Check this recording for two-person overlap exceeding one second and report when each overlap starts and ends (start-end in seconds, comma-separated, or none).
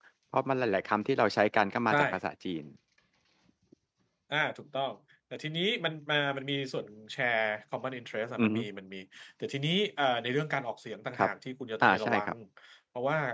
none